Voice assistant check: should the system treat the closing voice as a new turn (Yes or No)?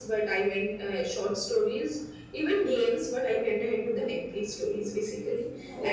No